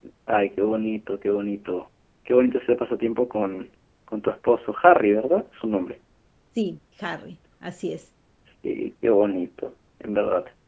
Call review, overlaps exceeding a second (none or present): none